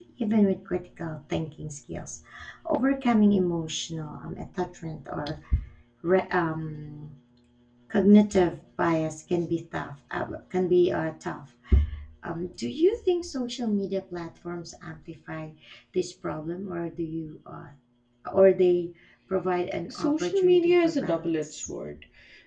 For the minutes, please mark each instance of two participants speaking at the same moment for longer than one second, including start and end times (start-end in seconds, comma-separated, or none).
19.9-21.7